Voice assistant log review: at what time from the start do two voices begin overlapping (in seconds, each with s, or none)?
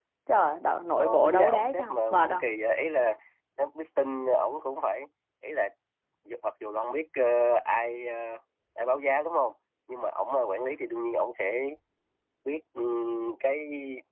1.0 s